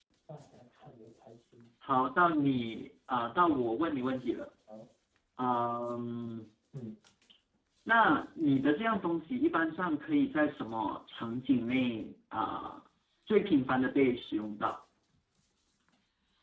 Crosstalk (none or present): none